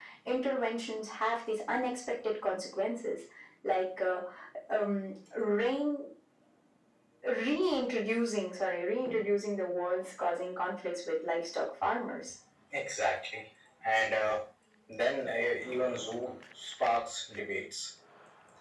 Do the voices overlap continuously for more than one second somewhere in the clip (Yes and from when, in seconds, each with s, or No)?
No